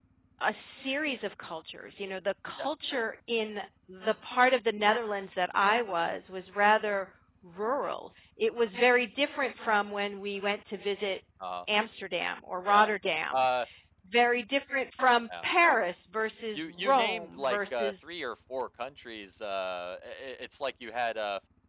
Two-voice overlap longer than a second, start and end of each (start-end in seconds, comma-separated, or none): 16.6-18.1